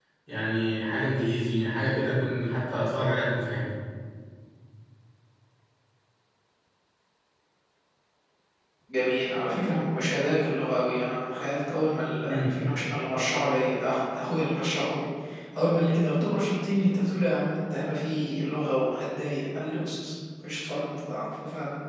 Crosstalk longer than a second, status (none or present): none